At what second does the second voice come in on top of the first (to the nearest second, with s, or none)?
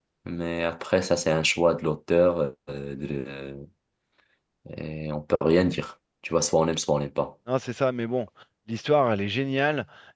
none